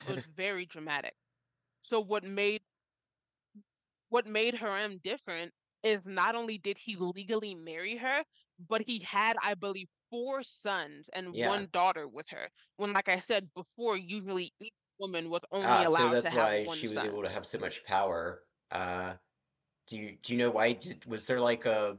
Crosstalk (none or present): present